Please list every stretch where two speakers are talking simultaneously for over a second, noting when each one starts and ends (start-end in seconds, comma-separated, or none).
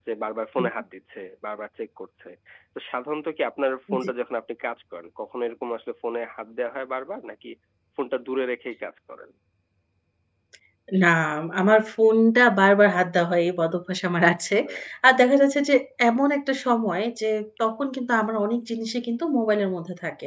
none